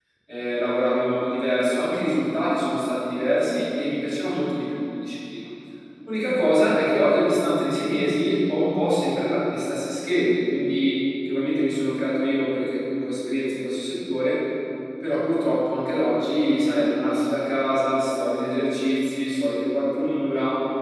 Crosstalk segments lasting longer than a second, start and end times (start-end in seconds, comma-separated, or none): none